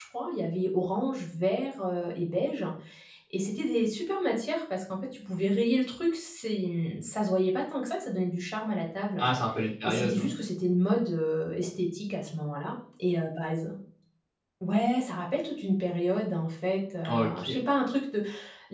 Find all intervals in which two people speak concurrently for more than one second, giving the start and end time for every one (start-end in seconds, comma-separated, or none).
none